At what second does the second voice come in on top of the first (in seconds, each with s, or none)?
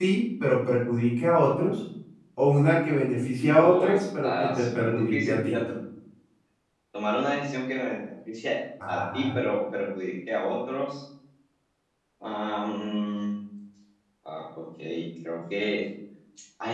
3.6 s